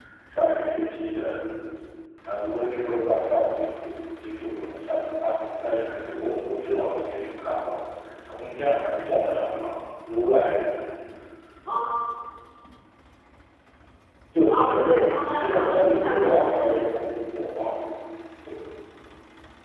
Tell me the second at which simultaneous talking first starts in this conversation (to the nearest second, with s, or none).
14 s